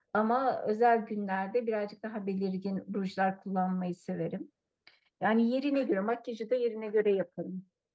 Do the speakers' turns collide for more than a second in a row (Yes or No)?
No